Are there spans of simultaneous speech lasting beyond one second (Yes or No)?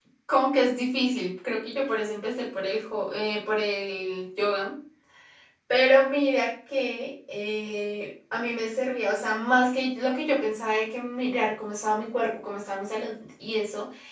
No